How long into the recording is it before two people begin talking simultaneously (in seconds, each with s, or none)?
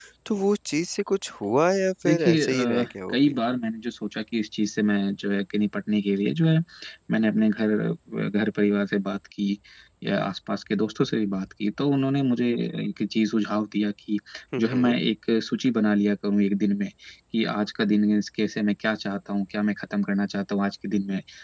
2.0 s